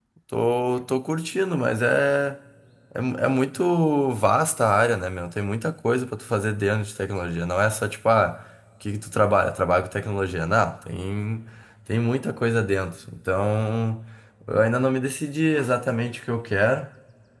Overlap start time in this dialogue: none

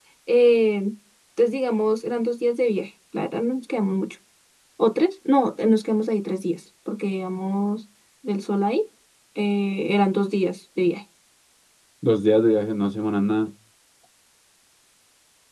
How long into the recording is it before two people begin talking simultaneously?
none

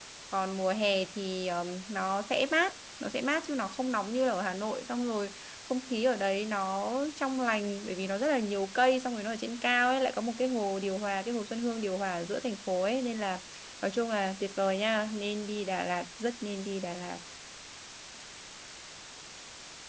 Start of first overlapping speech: none

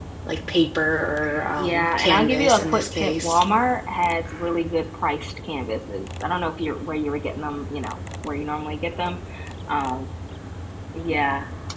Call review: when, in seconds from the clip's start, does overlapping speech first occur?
1.6 s

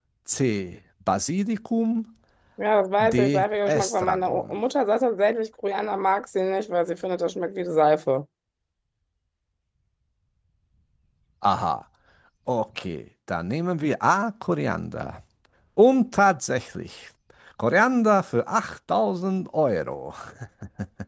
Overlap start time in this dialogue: 3.0 s

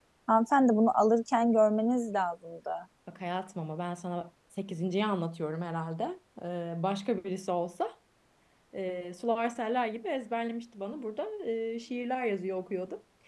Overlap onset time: none

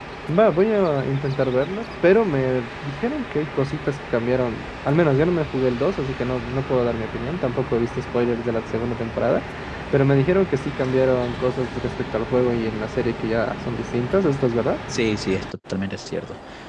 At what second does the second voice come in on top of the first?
none

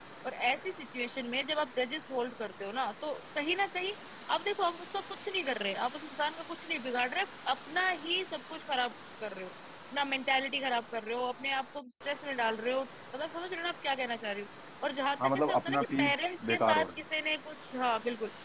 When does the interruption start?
15.2 s

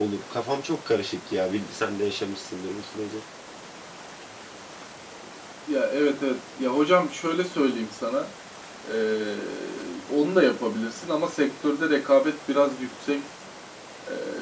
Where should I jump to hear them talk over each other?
none

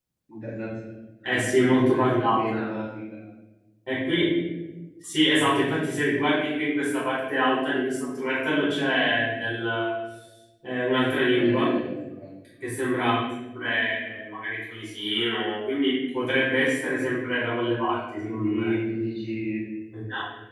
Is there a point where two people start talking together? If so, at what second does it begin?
1.2 s

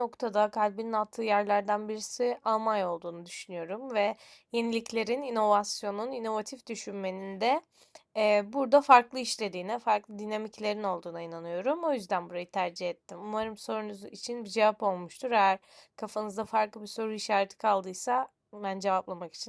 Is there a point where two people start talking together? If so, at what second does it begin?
none

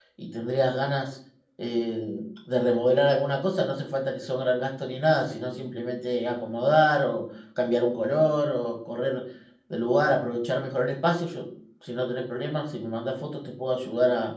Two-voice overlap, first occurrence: none

